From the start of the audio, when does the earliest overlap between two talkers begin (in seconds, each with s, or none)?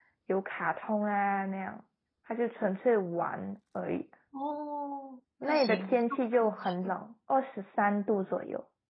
5.4 s